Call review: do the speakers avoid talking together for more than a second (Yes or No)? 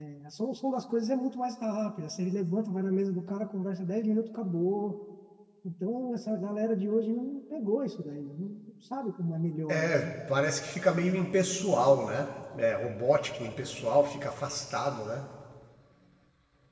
Yes